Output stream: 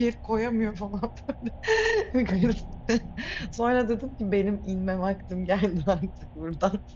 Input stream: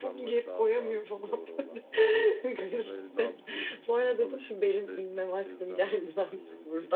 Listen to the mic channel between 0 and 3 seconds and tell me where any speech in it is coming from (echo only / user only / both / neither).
both